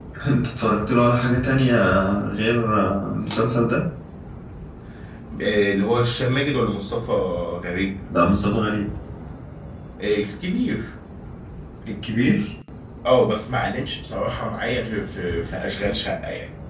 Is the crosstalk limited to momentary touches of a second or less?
Yes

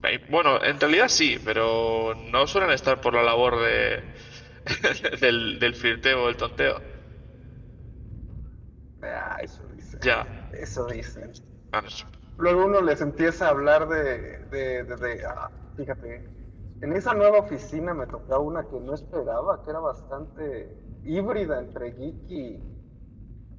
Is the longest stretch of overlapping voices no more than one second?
Yes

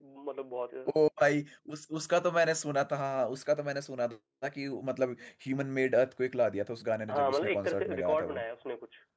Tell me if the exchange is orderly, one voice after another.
No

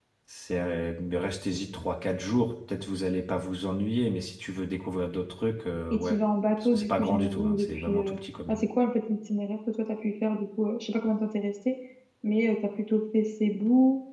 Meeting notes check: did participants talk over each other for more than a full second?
Yes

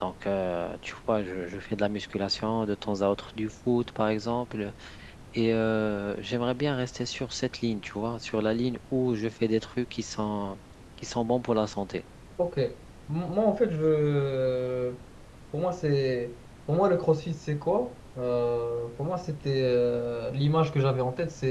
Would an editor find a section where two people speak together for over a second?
No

